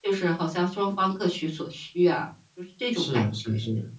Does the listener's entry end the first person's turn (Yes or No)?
Yes